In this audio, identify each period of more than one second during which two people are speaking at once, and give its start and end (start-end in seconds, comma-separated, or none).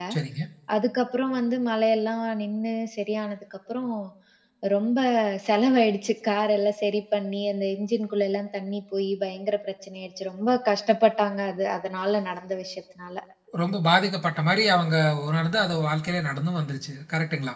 none